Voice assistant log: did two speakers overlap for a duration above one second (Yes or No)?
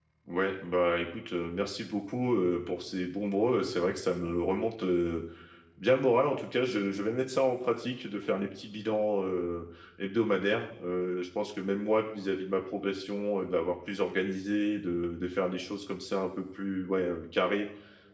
No